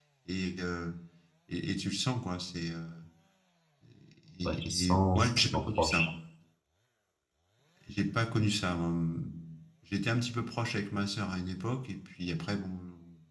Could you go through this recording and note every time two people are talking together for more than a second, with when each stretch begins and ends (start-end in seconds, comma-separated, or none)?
4.4-6.1